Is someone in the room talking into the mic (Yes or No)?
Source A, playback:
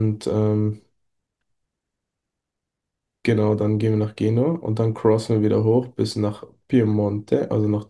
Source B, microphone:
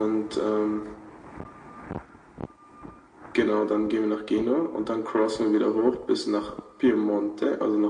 No